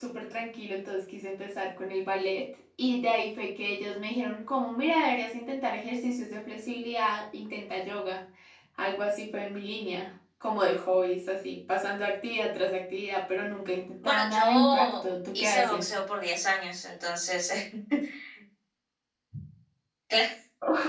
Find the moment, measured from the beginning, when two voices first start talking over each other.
14.0 s

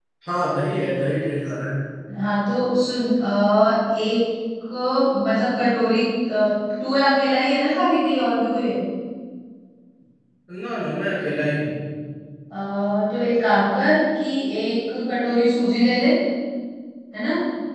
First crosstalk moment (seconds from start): none

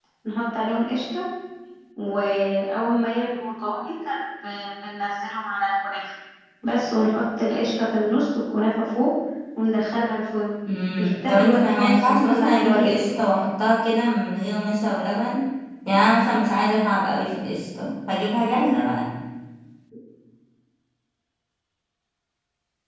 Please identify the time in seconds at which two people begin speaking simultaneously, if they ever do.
11.0 s

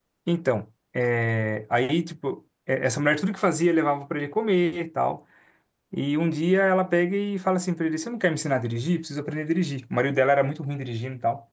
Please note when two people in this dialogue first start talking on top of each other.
none

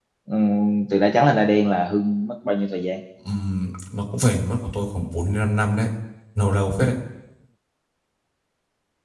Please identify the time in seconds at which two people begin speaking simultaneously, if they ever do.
none

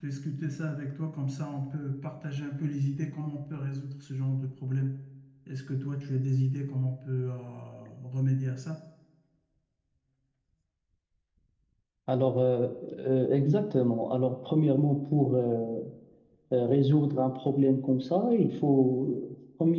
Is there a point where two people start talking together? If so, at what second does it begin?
none

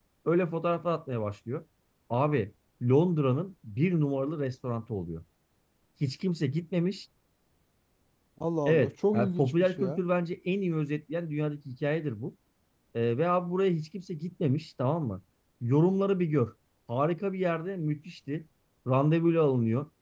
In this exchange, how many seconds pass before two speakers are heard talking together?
8.7 s

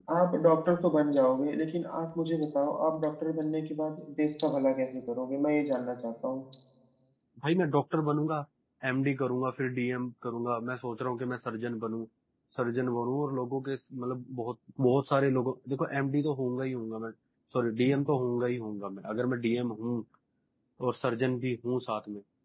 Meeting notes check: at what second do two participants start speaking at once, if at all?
none

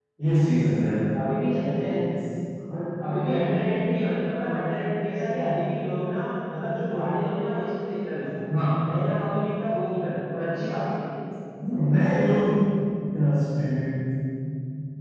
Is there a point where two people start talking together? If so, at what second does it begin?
none

